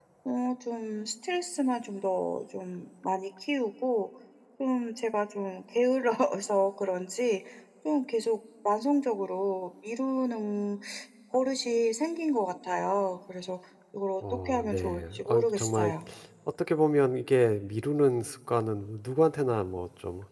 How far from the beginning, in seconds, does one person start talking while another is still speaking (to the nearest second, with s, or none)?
14 s